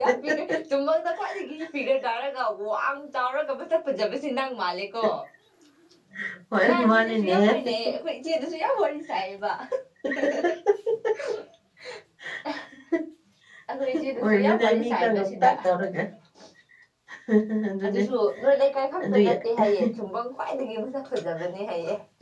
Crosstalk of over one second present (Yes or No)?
Yes